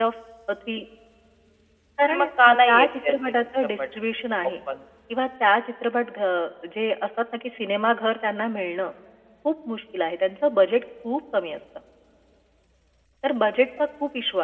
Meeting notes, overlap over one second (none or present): present